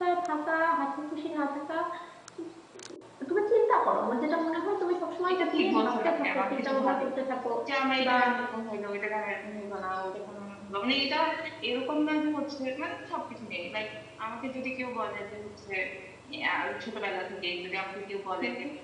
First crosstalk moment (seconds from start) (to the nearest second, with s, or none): 5 s